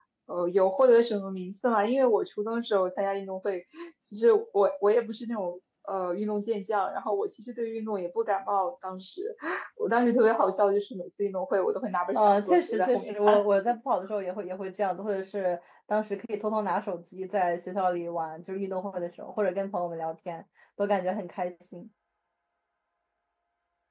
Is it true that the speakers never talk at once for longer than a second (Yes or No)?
No